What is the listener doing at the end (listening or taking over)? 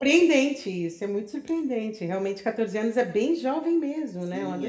taking over